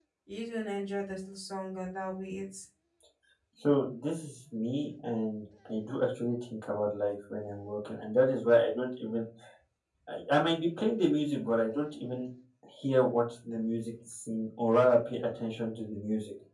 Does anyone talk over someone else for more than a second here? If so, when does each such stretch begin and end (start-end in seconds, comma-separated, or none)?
none